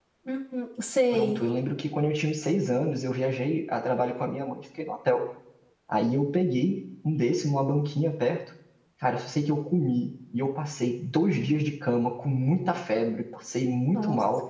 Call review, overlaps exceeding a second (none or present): none